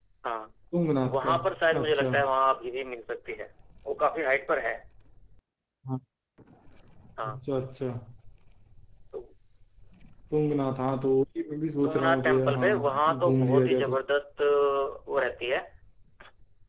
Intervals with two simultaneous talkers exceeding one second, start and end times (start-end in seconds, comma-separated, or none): 11.8-13.9